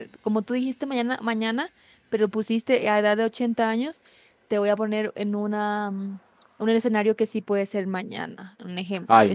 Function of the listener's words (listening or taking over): taking over